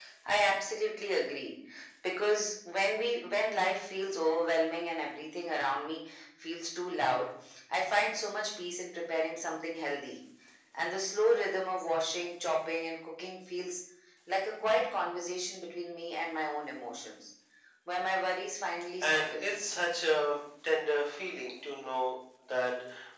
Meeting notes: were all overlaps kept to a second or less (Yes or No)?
Yes